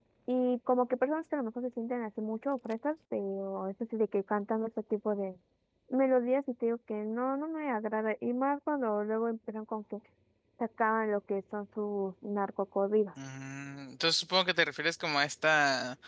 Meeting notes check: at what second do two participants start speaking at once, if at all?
none

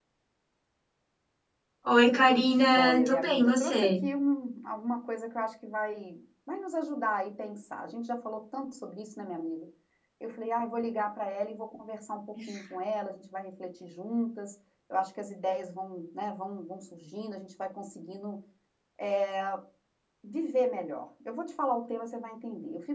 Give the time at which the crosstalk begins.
2.1 s

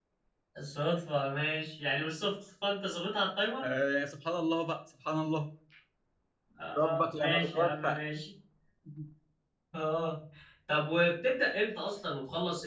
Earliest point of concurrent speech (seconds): 6.8 s

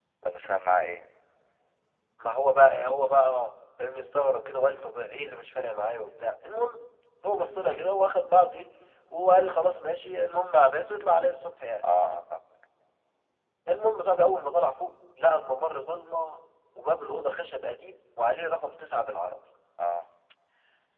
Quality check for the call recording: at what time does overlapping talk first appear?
none

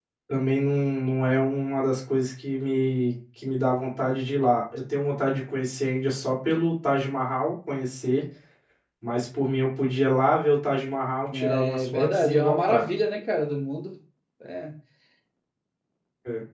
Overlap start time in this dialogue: 11.3 s

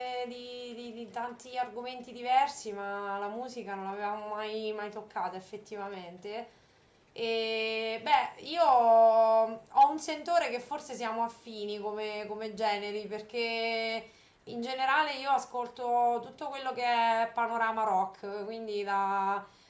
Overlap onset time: none

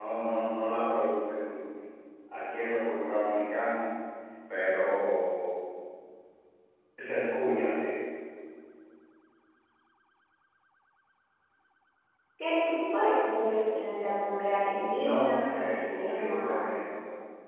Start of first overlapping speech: 14.6 s

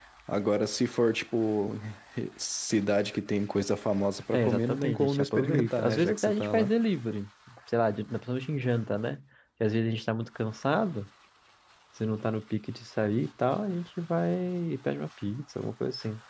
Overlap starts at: 4.3 s

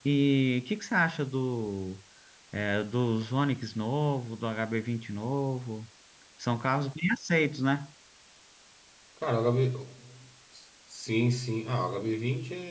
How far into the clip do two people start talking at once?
none

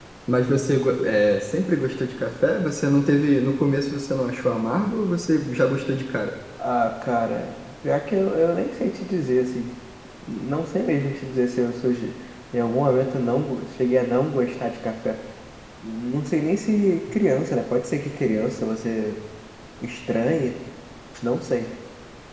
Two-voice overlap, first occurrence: none

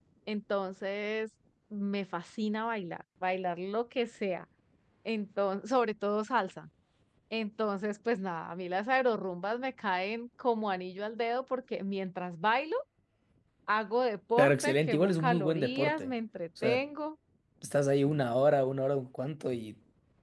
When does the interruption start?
14.4 s

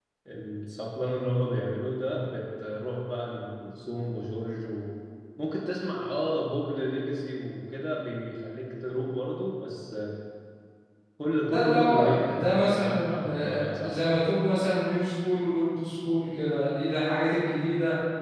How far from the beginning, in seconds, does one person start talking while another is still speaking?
11.5 s

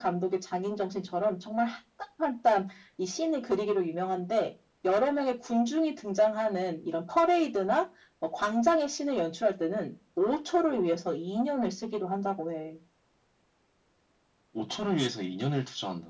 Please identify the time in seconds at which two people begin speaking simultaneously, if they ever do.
none

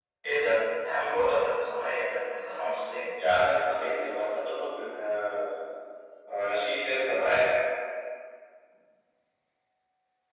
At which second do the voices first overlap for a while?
none

